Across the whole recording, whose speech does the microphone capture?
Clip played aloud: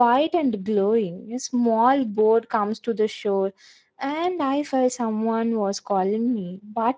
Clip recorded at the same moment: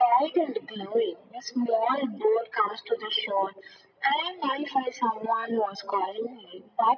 echo only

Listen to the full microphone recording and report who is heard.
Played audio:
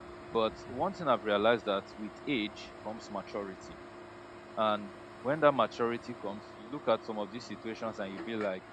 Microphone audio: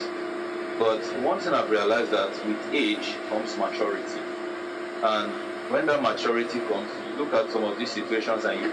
echo only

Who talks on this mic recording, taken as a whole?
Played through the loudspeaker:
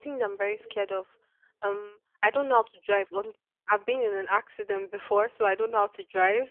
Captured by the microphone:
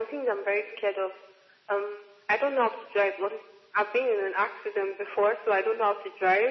echo only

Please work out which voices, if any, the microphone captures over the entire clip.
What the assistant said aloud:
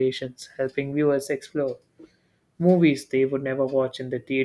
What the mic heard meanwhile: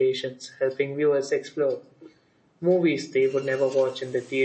echo only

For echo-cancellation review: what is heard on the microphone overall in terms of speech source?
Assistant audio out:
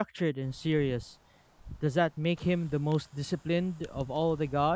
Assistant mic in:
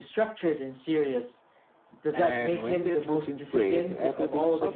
both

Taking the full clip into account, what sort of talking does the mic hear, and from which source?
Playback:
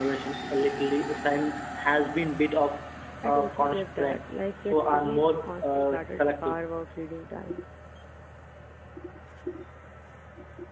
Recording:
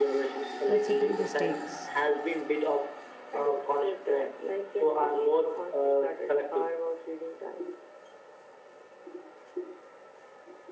both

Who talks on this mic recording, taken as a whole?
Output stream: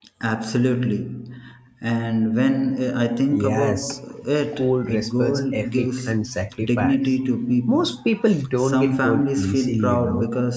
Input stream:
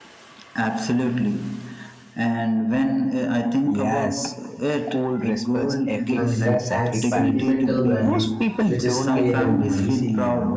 both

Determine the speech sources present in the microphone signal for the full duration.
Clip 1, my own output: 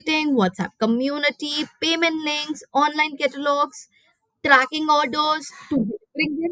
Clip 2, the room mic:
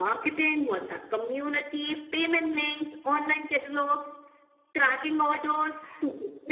echo only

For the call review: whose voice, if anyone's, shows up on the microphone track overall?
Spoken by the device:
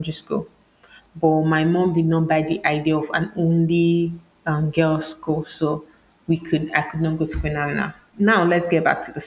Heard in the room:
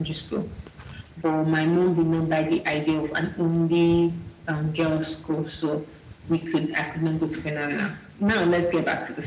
echo only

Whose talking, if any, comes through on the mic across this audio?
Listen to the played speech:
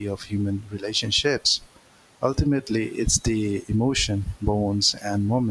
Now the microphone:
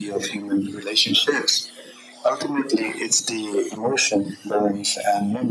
echo only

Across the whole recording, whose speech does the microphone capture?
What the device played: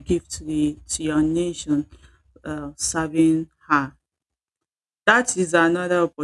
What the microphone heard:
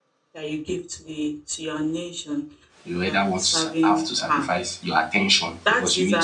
both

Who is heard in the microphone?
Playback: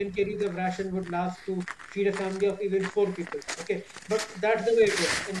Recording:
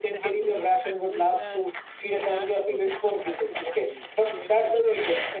both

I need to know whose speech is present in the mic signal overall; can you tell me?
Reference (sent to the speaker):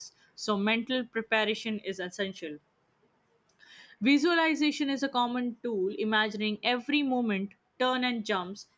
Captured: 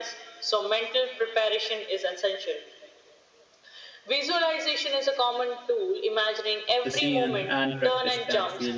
both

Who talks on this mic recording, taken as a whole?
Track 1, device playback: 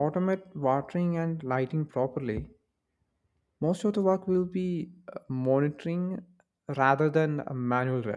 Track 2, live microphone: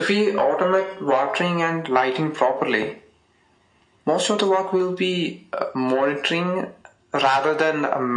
echo only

